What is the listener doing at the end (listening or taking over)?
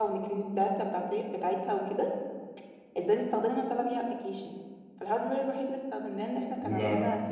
listening